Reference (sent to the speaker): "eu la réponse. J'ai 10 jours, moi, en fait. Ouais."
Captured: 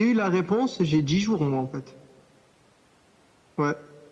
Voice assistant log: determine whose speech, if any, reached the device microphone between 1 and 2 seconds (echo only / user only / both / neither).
echo only